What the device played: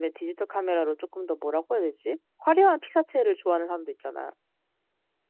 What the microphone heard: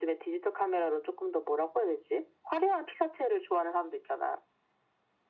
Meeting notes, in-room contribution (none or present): none